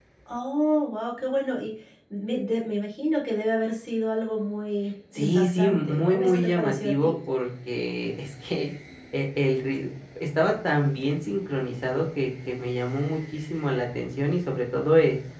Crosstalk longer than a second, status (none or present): present